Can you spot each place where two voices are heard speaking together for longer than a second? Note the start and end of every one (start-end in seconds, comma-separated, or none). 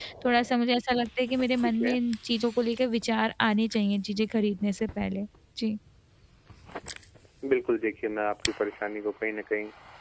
none